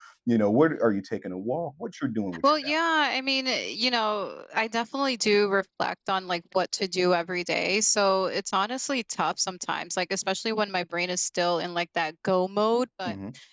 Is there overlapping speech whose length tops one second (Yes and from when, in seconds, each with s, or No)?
No